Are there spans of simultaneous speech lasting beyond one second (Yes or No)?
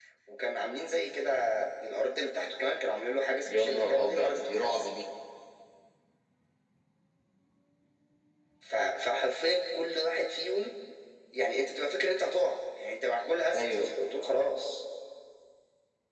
Yes